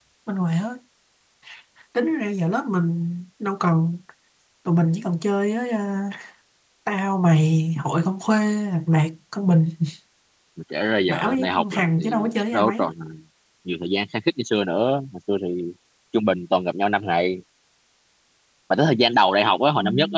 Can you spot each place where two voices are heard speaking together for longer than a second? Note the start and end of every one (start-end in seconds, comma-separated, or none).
11.1-12.9